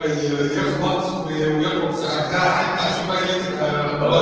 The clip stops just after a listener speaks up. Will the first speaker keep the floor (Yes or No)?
No